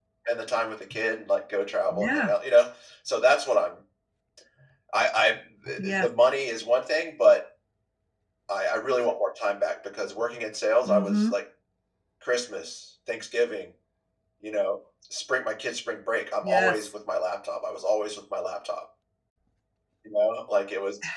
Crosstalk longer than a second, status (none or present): none